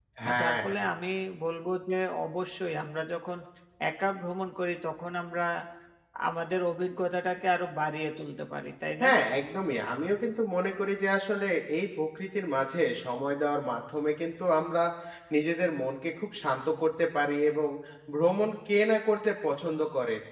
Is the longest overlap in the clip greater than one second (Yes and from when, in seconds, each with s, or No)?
No